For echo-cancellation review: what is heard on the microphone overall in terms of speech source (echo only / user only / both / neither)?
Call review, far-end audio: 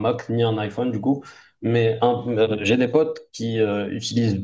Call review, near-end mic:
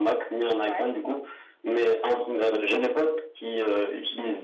both